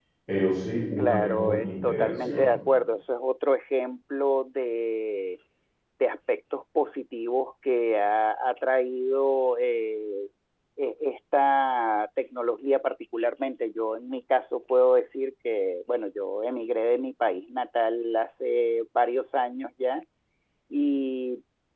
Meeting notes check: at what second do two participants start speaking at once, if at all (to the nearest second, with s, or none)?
1 s